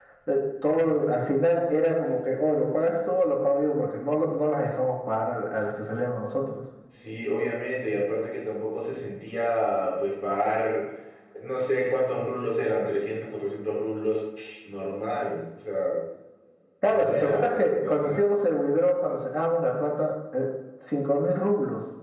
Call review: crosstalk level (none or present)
present